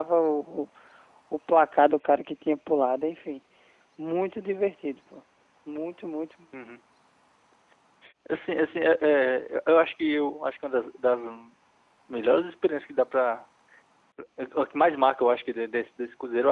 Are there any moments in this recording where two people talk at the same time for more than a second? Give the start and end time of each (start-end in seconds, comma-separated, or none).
none